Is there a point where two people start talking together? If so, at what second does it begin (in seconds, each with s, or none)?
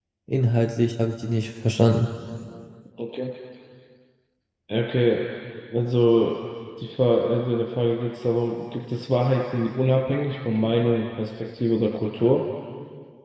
none